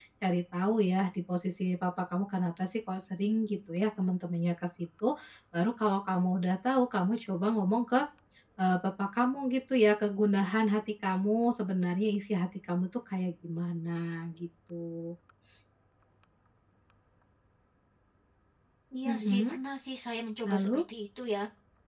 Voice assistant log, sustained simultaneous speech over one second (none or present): none